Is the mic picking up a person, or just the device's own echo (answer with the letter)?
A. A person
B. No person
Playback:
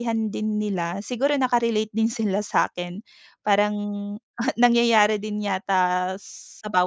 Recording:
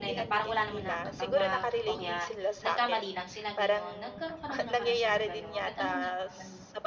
A